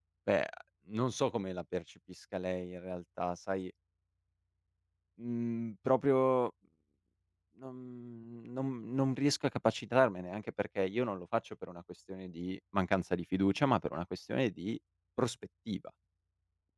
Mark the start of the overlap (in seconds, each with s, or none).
none